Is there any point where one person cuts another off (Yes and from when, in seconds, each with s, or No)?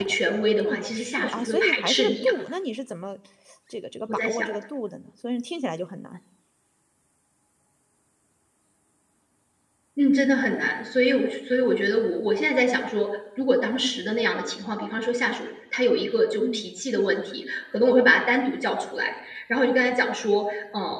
Yes, from 0.6 s